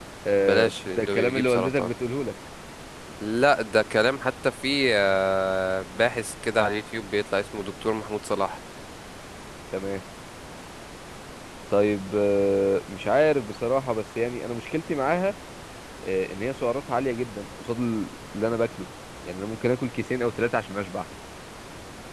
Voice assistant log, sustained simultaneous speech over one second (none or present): present